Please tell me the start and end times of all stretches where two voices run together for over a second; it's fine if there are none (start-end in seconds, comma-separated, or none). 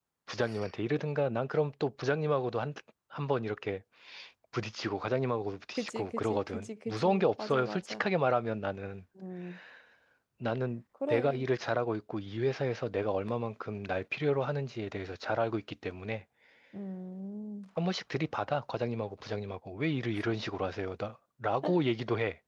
5.8-8.0